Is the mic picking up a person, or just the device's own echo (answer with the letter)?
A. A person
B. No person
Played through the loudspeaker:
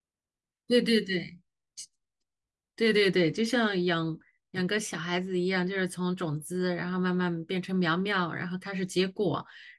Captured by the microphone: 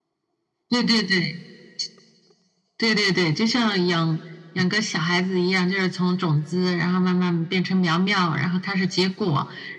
B